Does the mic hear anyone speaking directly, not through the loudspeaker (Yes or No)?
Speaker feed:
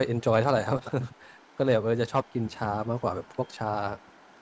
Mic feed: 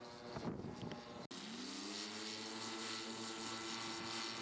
No